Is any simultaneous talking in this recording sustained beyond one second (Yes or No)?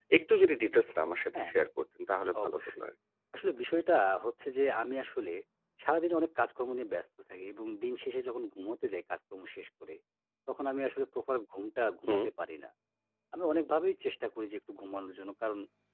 No